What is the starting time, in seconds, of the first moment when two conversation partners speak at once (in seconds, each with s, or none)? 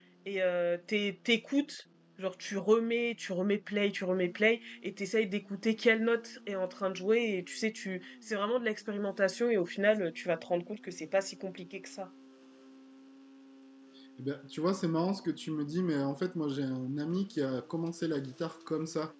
none